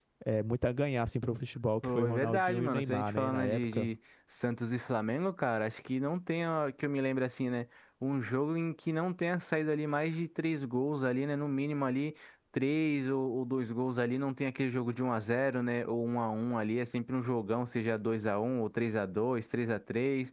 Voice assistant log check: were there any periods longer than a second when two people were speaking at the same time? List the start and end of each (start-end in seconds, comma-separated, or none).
1.8-3.9